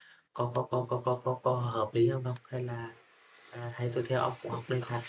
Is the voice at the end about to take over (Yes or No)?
No